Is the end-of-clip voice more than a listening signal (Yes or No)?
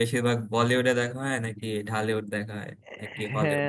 Yes